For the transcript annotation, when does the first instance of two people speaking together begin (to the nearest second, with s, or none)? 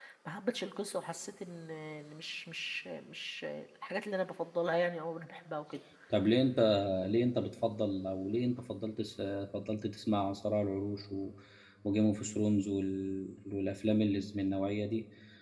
none